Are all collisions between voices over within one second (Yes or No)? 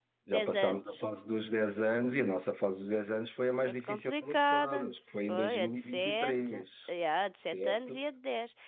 No